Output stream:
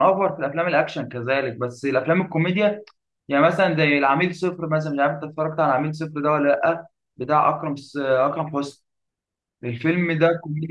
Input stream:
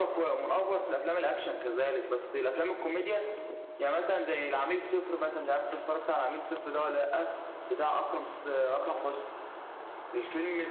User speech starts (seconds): none

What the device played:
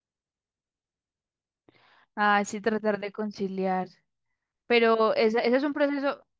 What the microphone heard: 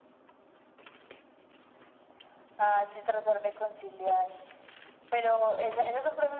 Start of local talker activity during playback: none

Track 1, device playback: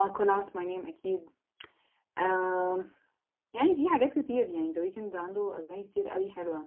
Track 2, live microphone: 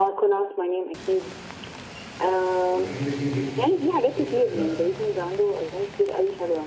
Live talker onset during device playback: 2.7 s

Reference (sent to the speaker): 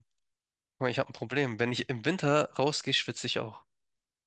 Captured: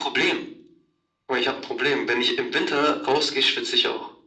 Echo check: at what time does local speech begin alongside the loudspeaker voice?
none

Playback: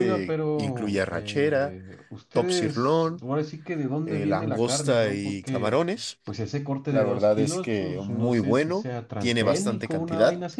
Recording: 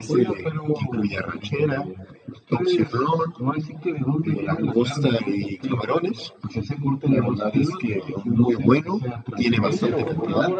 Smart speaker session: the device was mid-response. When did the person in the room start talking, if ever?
9.6 s

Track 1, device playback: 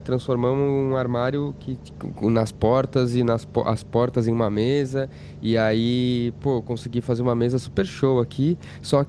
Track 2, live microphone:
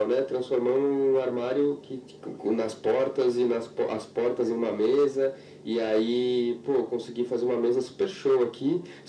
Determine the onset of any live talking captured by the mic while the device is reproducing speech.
none

